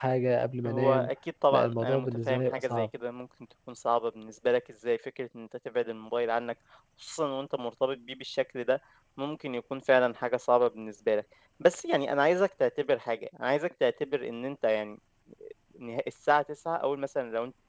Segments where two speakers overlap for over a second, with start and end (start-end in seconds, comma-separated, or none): 1.5-2.9